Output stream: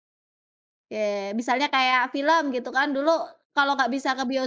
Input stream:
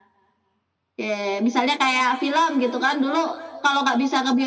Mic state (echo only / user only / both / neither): echo only